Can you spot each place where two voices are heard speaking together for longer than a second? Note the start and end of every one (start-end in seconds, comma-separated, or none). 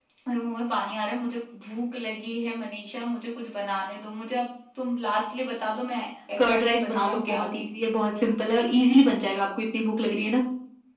6.4-7.6